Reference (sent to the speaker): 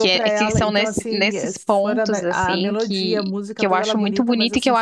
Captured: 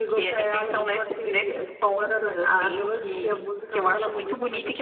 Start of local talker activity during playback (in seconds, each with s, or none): none